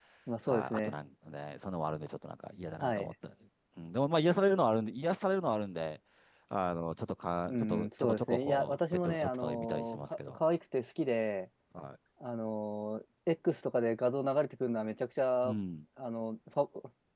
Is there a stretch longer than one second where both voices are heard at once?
Yes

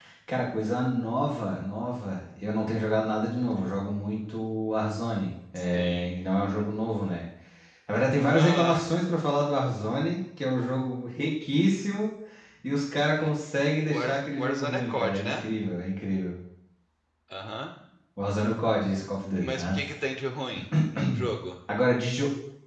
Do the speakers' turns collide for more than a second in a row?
Yes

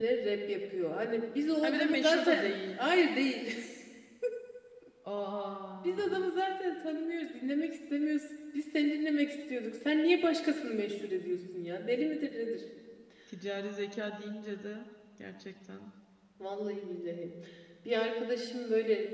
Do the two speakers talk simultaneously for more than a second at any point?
Yes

